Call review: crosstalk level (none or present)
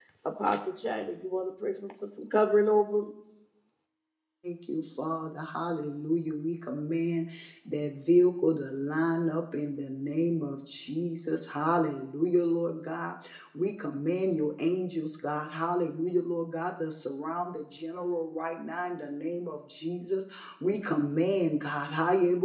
none